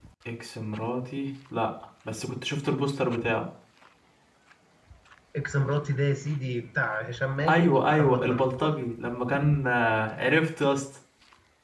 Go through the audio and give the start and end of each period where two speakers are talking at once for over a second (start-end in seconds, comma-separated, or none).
7.5-8.7